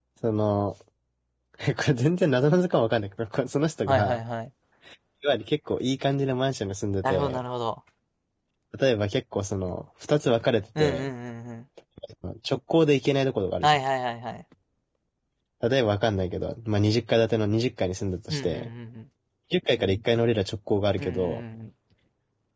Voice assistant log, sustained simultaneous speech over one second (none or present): none